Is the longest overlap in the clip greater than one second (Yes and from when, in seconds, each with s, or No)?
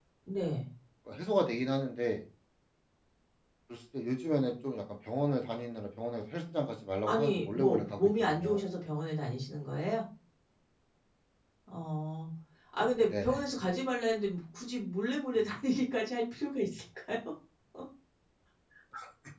Yes, from 7.1 s